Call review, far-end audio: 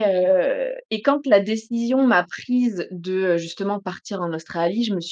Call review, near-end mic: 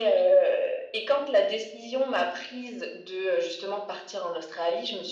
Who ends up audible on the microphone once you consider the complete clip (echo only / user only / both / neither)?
echo only